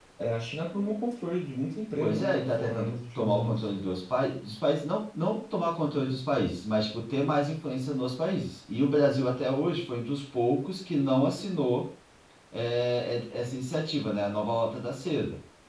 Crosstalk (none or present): present